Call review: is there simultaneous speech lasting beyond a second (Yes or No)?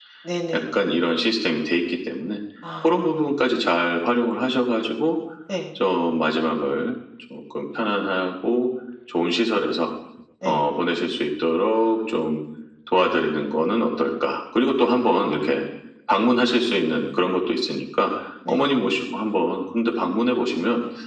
No